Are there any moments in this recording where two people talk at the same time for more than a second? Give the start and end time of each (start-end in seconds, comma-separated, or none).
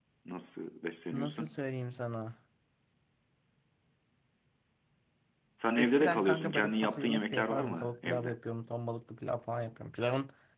5.8-8.4